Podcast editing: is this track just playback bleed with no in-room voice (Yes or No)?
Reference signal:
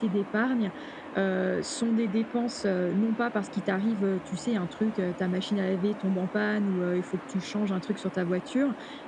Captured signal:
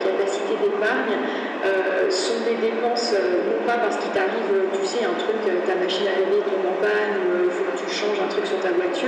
Yes